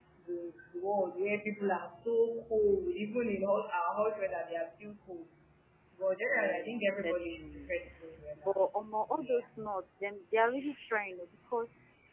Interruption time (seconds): 6.3 s

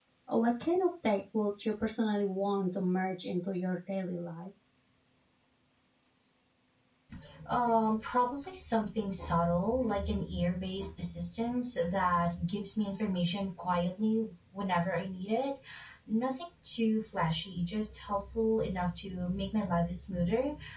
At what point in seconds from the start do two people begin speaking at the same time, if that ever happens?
none

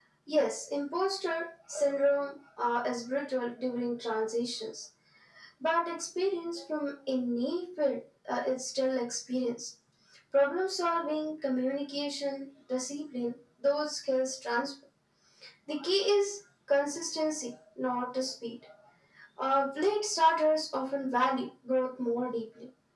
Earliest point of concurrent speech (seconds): none

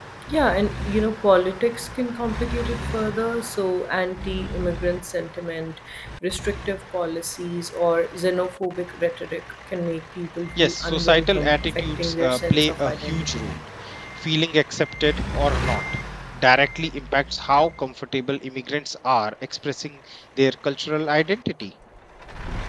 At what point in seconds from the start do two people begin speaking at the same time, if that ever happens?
10.6 s

